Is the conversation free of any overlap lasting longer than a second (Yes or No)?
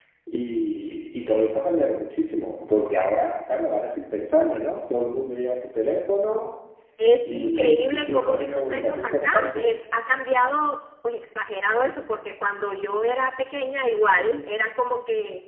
No